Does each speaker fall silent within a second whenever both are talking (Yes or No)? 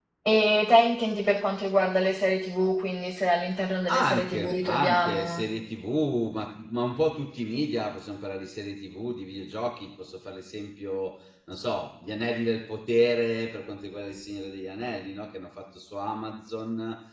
No